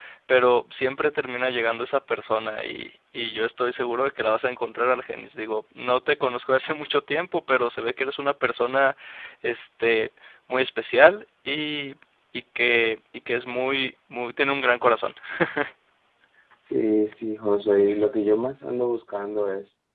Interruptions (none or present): none